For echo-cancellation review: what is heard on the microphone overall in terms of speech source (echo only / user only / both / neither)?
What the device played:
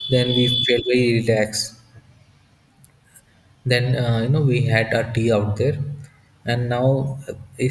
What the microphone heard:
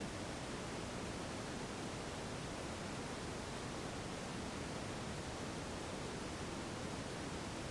neither